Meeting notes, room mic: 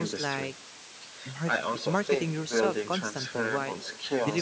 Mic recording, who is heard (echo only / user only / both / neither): both